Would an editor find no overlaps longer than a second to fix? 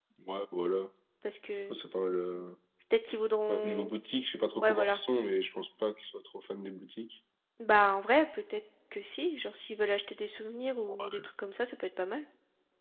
Yes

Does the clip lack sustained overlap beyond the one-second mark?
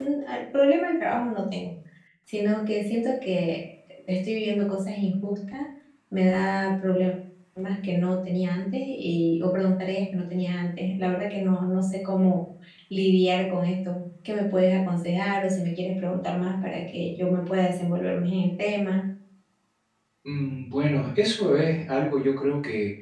Yes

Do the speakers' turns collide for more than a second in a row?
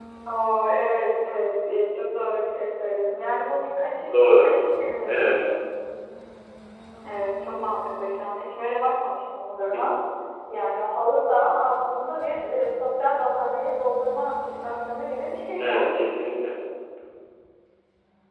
No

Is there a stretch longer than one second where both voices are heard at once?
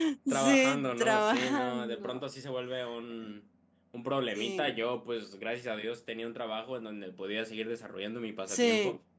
Yes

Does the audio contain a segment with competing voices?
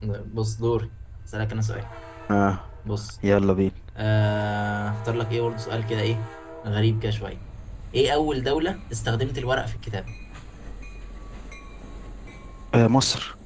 No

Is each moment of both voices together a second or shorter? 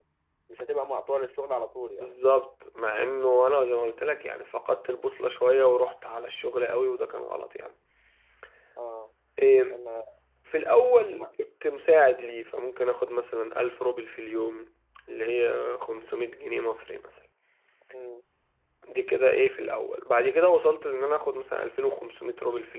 Yes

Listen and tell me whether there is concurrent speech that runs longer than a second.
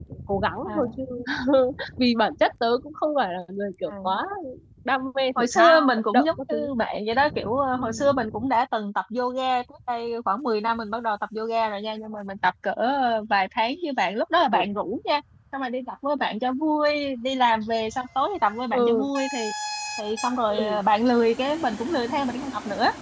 Yes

